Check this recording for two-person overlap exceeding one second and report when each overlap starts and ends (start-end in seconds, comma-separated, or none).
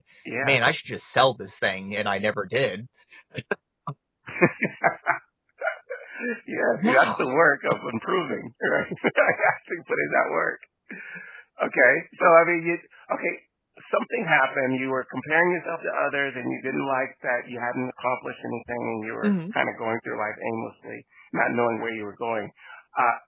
none